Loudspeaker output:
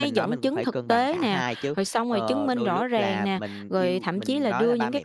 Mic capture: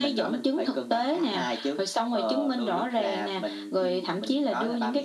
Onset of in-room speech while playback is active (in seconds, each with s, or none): none